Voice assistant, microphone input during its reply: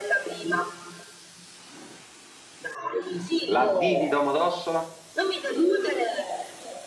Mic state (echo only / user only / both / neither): both